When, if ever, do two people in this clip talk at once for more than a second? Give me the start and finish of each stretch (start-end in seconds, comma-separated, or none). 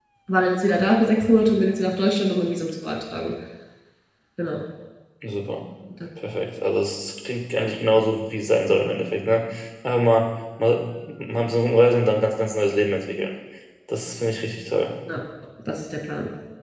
none